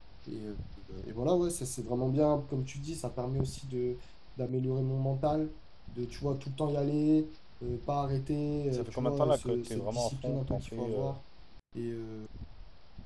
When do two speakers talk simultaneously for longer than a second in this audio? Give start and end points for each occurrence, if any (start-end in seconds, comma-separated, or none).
8.7-11.2